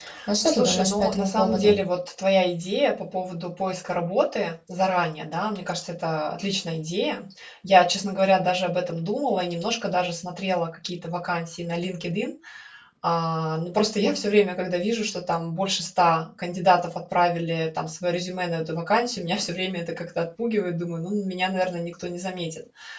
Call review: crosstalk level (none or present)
present